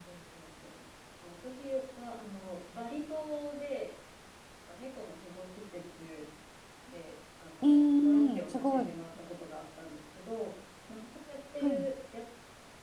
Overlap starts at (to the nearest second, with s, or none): 8 s